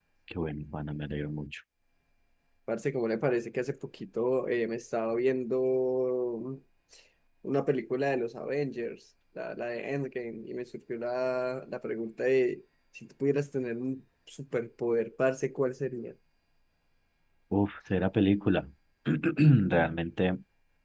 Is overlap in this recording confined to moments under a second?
Yes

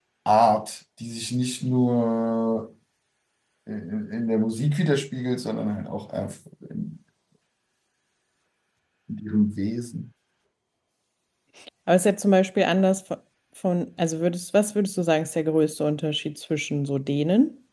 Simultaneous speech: No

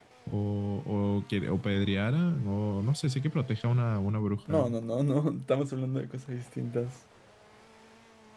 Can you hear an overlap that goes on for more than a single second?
No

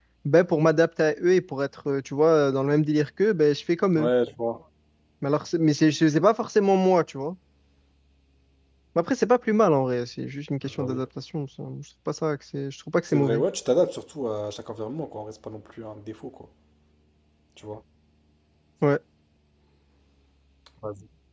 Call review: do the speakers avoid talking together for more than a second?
Yes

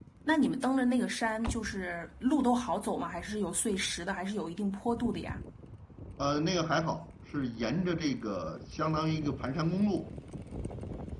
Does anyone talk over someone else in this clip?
No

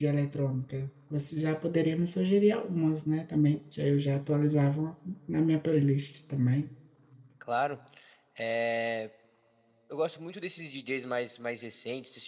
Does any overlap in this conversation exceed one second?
No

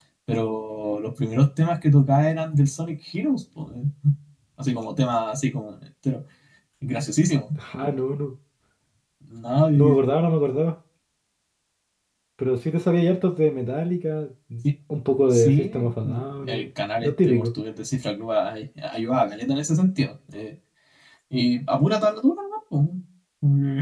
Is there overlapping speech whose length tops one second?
Yes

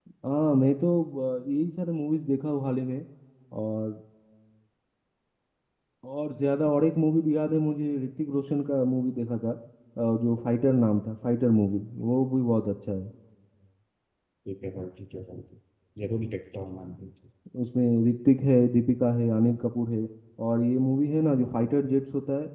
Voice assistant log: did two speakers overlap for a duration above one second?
No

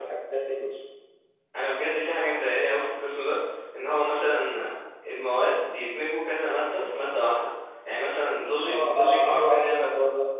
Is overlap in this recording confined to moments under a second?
No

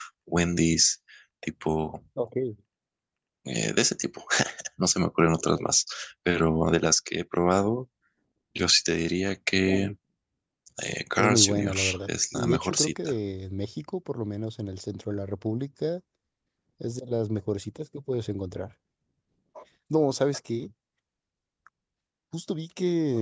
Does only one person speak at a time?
No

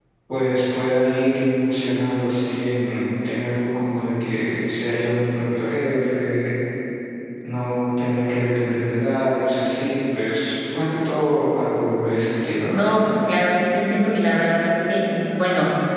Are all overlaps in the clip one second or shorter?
Yes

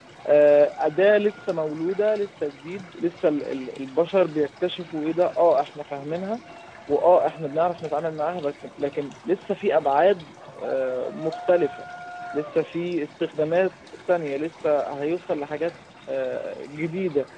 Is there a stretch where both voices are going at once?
No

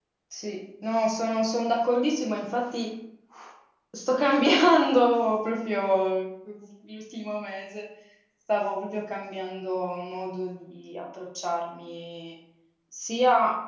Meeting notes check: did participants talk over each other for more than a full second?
No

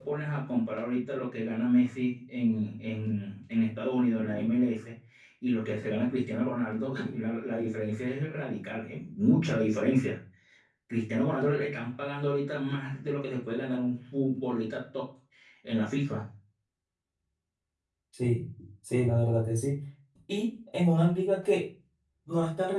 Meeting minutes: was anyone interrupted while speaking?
No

